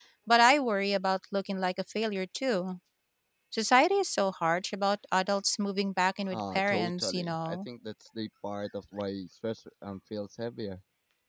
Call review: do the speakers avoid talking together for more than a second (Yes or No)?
No